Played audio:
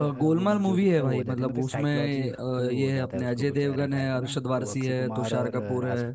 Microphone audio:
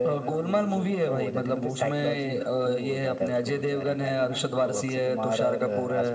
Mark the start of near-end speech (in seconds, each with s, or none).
none